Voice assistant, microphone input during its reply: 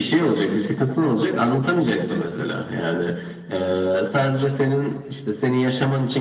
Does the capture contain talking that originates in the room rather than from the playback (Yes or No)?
No